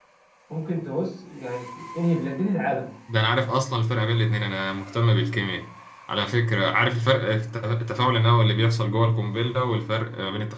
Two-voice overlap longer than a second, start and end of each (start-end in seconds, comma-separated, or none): none